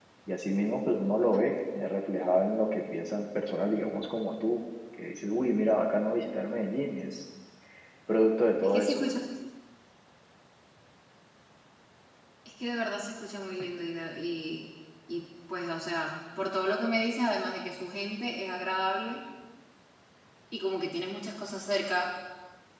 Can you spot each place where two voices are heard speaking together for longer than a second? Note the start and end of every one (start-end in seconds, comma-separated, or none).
none